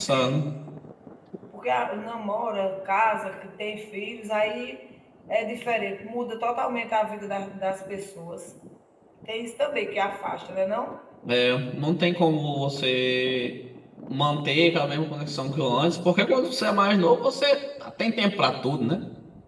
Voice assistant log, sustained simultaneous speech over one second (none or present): none